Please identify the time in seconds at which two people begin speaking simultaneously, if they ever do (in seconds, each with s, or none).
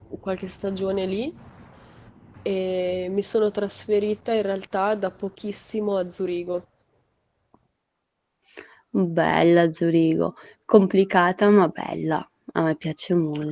none